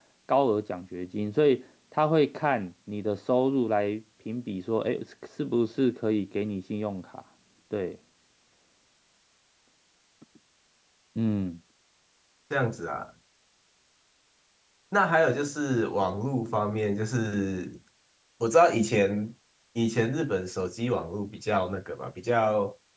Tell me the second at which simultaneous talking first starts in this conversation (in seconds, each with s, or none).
none